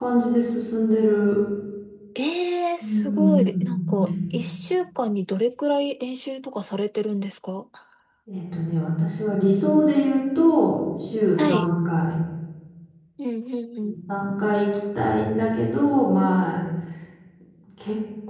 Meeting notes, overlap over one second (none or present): present